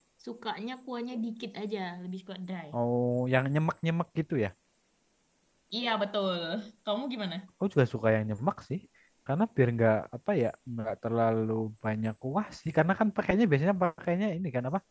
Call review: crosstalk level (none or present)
none